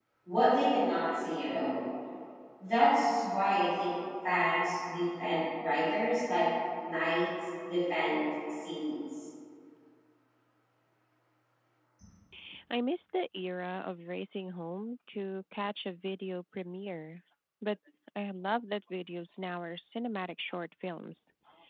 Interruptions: none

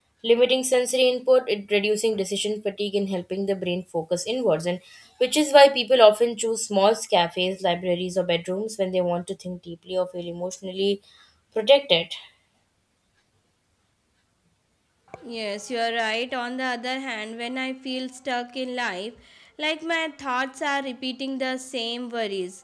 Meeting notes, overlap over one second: none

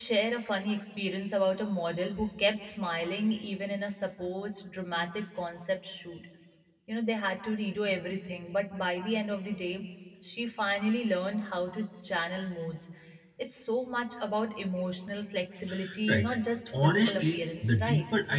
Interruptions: present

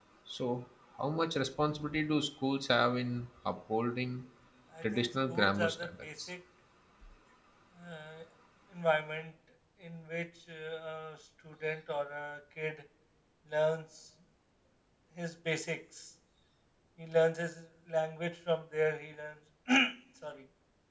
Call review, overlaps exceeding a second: present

